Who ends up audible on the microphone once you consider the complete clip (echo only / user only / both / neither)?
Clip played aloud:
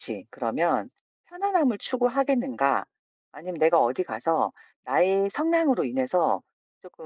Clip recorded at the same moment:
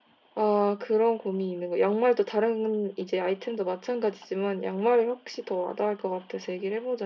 user only